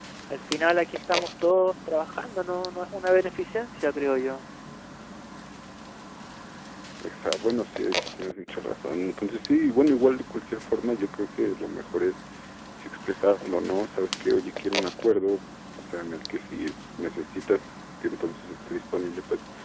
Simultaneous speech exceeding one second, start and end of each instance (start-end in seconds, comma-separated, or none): none